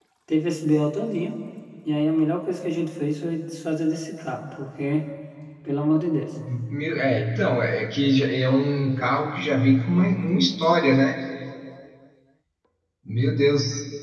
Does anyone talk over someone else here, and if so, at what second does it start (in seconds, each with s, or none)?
none